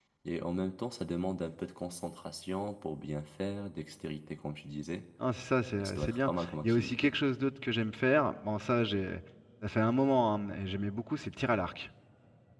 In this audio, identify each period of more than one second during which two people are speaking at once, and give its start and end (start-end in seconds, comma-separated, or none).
5.8-7.1